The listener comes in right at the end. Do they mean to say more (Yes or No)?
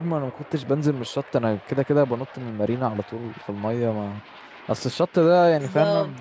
No